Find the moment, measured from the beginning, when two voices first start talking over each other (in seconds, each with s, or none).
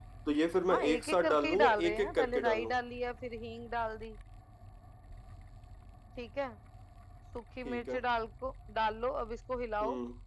0.7 s